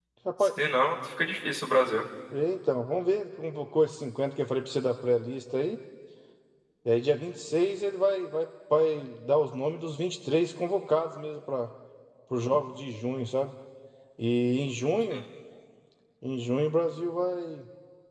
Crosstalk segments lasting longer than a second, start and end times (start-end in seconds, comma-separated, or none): none